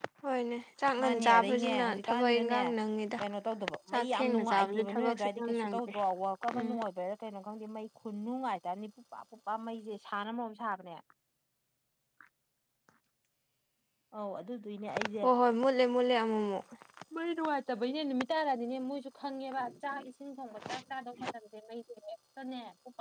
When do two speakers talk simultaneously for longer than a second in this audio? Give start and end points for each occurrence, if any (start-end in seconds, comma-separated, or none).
1.0-2.6, 3.9-5.9